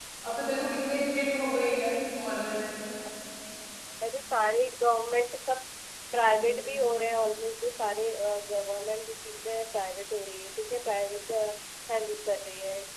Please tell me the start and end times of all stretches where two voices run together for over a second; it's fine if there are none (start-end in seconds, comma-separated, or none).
none